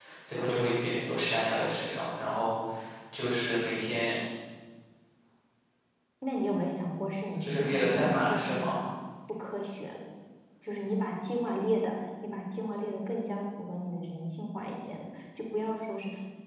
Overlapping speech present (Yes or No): Yes